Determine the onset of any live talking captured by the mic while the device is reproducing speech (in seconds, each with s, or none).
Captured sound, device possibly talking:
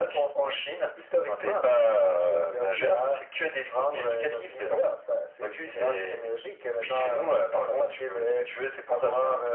none